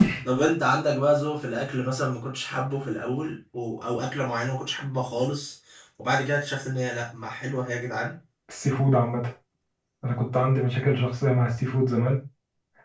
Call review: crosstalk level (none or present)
none